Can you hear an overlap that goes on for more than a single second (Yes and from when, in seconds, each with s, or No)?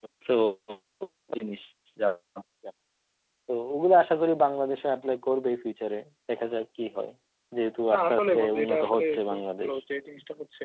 Yes, from 7.9 s